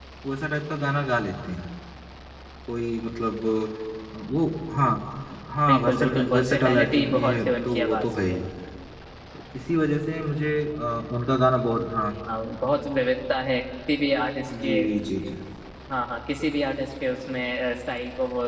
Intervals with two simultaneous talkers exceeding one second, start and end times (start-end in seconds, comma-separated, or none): 5.7-8.4